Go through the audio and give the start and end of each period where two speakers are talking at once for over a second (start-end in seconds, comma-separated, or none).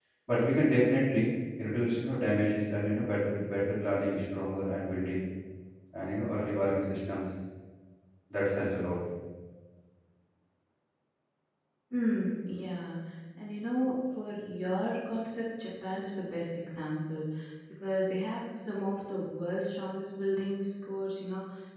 none